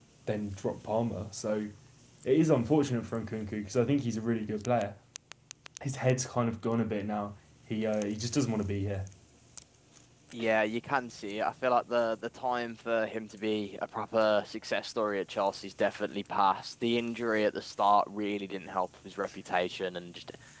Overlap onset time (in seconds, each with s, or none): none